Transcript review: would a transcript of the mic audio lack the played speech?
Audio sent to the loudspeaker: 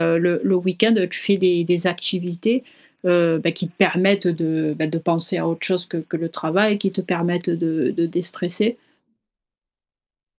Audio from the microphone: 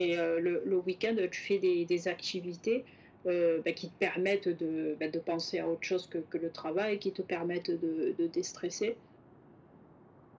No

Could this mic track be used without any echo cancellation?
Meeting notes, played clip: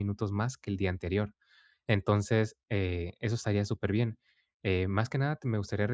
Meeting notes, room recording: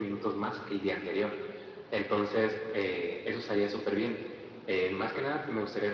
No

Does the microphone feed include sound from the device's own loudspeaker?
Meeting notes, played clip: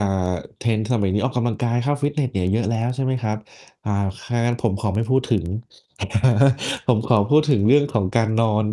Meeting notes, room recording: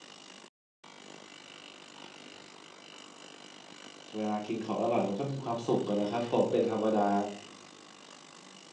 No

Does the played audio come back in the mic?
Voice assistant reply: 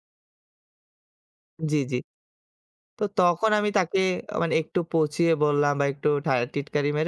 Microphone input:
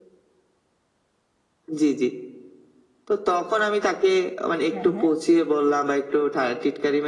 Yes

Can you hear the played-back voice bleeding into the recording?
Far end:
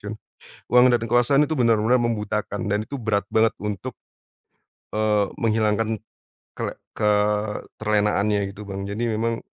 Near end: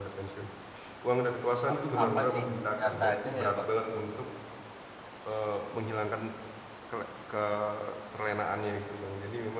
Yes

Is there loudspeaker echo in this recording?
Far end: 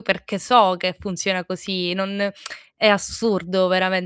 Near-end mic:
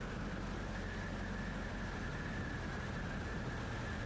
No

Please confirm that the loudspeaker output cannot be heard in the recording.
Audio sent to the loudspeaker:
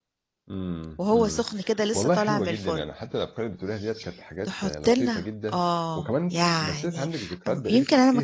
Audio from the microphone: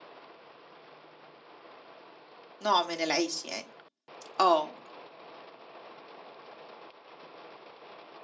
Yes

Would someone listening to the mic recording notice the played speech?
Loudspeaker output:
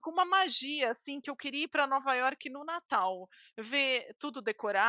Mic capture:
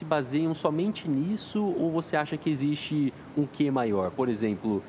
No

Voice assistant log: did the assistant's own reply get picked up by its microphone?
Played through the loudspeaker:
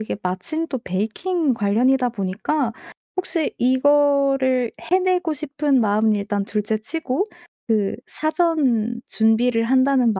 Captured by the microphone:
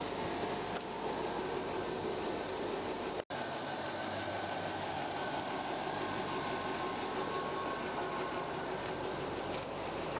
No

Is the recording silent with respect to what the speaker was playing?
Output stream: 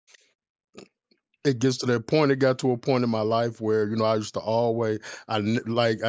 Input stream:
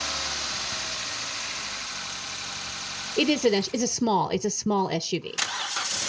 Yes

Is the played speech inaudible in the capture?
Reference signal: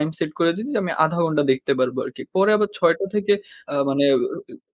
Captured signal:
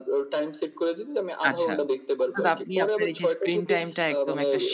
No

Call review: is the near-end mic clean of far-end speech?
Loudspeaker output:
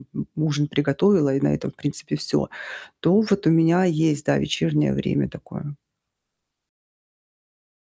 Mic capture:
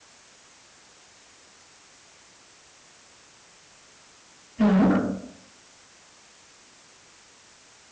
Yes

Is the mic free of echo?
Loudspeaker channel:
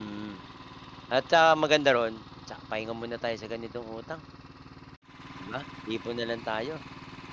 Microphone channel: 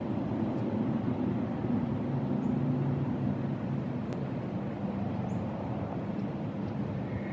Yes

